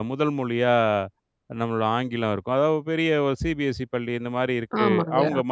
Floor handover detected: No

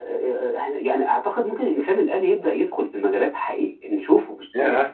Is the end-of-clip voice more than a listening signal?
Yes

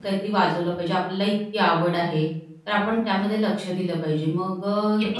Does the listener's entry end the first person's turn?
Yes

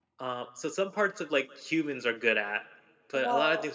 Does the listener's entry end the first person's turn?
No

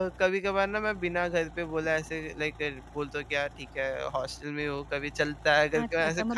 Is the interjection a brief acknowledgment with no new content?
No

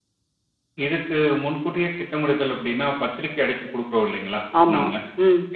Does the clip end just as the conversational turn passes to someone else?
No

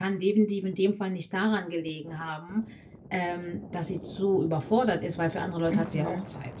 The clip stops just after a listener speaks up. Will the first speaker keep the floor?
No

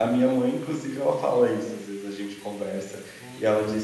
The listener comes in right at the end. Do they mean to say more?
No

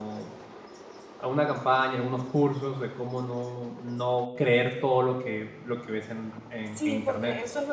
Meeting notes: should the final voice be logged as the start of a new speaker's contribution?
Yes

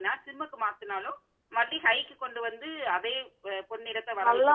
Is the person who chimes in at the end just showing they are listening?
No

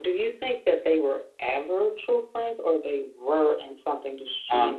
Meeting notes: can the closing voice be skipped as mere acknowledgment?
No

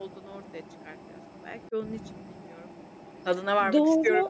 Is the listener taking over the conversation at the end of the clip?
Yes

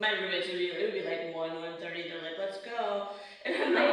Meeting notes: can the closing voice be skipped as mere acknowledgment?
No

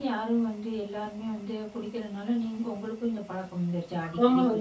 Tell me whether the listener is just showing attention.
No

